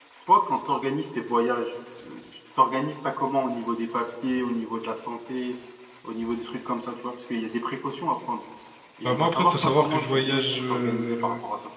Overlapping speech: Yes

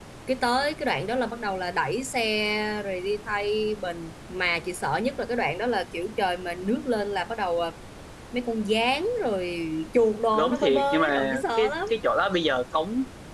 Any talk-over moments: Yes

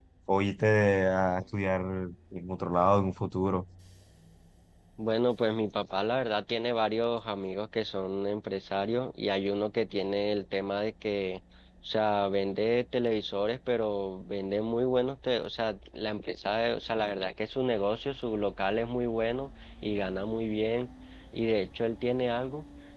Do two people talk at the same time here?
No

